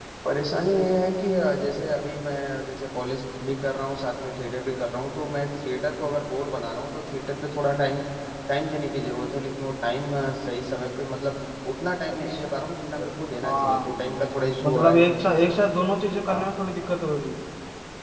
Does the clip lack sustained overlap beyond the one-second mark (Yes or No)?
Yes